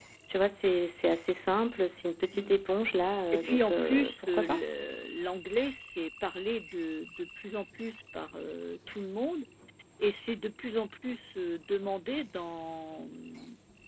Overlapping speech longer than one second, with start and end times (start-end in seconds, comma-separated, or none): 3.3-4.6